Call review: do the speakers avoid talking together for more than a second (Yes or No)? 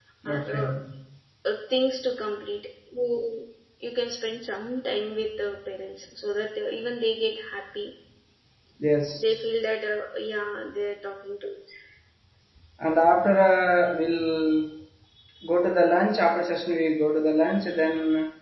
Yes